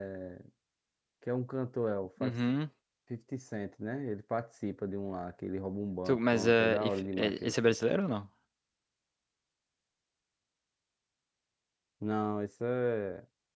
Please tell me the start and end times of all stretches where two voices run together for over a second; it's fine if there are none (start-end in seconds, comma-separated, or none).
6.1-7.8